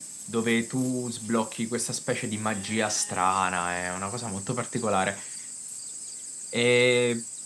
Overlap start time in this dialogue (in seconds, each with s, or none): none